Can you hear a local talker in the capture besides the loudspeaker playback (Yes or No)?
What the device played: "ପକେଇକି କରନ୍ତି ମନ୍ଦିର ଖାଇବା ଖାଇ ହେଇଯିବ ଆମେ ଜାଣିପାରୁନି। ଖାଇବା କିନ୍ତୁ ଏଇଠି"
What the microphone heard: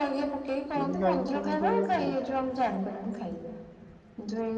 Yes